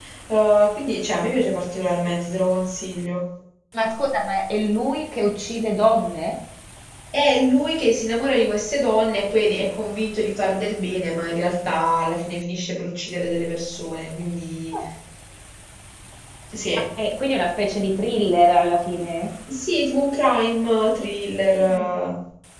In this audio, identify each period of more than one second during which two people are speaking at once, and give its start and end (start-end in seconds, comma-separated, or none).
none